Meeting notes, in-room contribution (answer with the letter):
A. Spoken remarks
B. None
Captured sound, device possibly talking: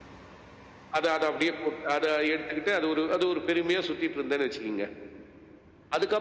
B